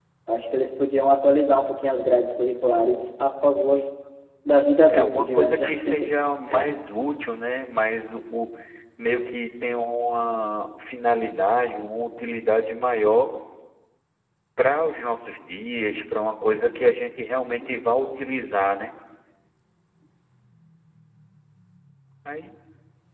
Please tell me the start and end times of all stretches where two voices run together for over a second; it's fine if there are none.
4.9-6.1

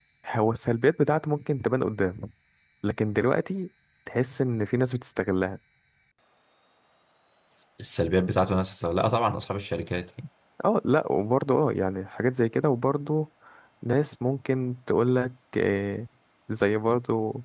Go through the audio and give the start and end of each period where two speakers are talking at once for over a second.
none

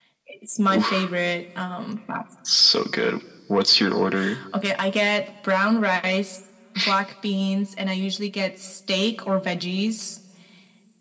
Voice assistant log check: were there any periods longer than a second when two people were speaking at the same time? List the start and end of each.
none

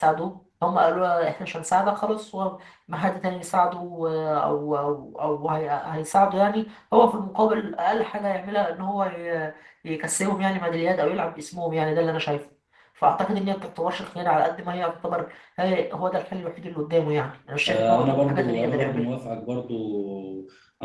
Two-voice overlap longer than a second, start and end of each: 17.7-19.0

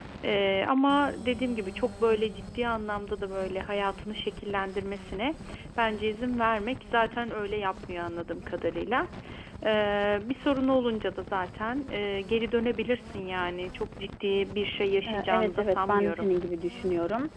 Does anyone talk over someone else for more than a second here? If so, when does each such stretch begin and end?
15.1-16.3

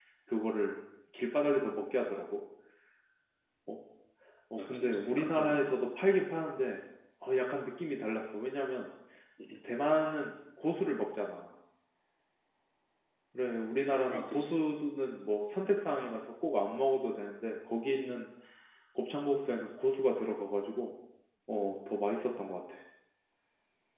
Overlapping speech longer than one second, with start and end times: 4.6-5.8

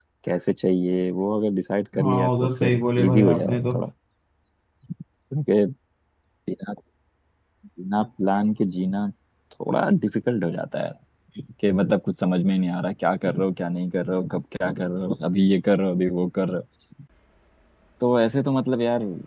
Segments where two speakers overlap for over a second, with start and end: 2.0-3.7

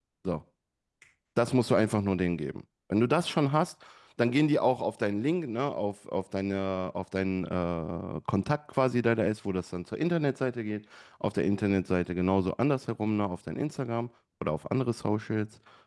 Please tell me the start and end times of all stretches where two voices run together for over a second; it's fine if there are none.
none

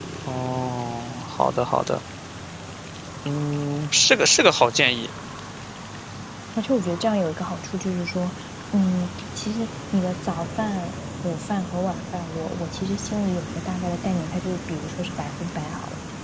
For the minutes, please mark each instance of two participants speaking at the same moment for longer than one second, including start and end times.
none

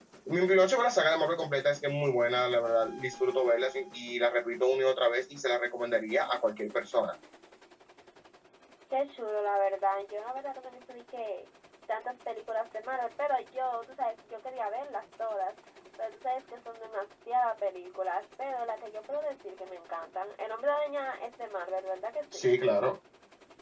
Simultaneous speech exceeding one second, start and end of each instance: none

